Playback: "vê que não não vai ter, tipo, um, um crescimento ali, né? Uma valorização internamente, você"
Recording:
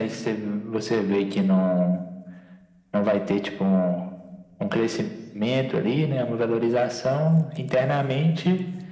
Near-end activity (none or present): none